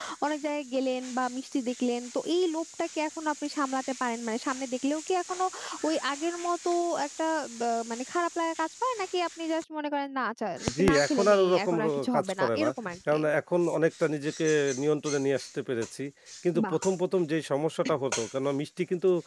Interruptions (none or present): present